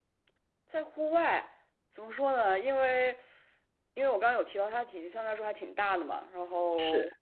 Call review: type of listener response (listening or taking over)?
listening